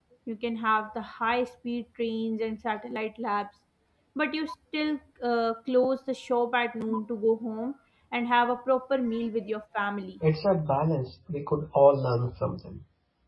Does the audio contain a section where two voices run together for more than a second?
No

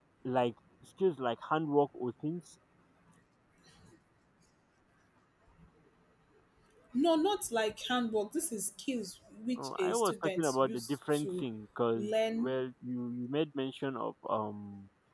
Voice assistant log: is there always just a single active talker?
No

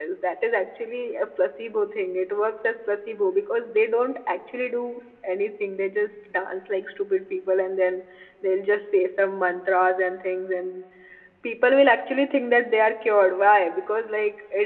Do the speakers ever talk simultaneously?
No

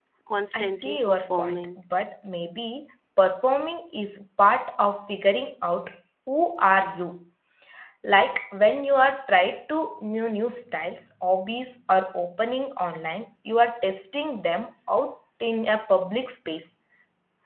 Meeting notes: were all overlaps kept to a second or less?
No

